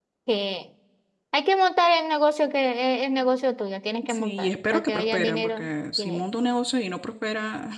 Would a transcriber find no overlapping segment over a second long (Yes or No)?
No